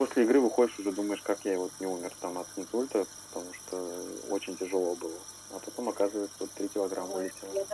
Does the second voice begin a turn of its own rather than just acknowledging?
Yes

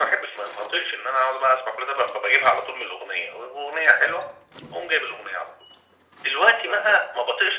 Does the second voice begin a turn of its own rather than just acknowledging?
No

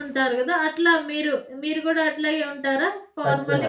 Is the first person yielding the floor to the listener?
Yes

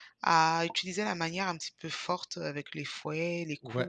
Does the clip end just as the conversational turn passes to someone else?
Yes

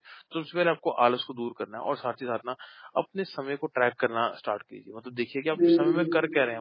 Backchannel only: Yes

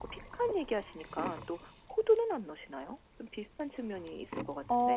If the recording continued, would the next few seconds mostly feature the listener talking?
Yes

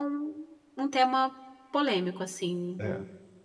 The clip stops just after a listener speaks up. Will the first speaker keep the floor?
No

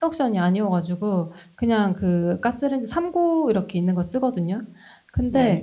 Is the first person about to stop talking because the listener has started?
No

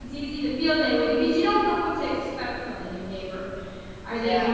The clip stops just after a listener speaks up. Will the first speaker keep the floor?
Yes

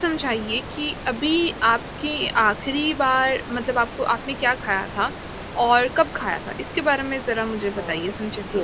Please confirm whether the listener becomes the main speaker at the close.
Yes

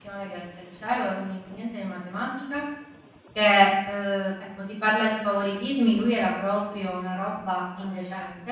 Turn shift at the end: No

